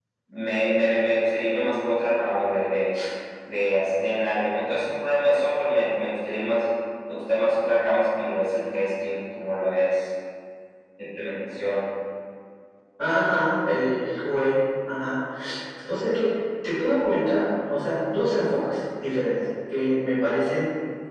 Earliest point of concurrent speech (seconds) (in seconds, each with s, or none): none